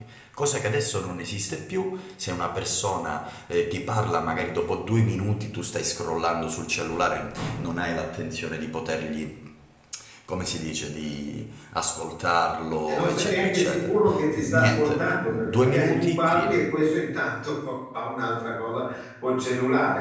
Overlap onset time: 13 s

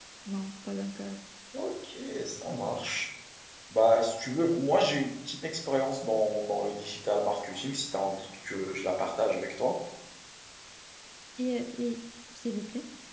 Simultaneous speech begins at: none

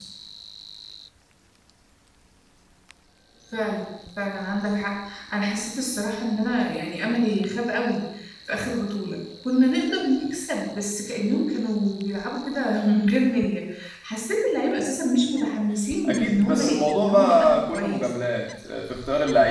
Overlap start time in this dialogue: 16 s

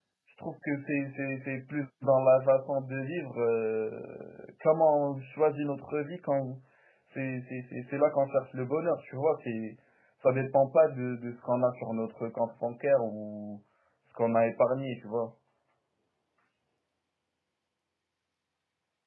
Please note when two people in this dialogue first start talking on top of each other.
none

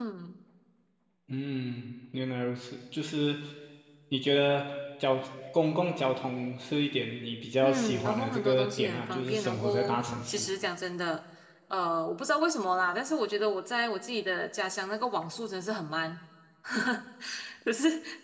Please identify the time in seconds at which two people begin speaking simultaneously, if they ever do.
8 s

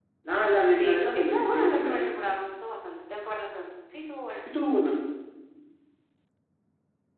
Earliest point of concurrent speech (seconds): 1 s

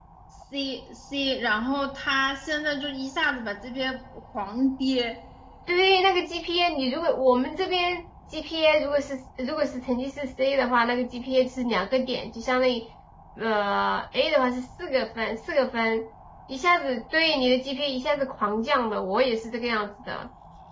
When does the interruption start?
none

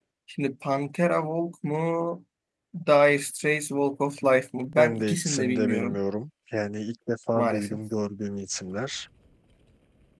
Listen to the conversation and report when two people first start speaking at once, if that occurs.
5 s

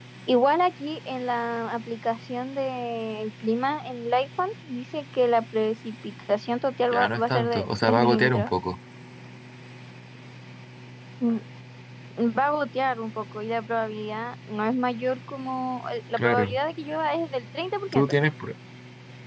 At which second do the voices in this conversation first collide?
7 s

